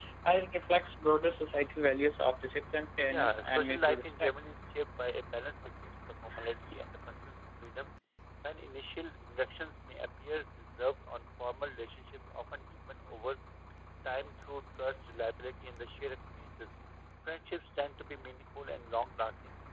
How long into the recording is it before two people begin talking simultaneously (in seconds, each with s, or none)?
3.1 s